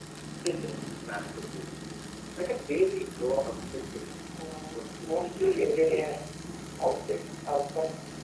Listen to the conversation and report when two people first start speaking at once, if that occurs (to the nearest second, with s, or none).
5 s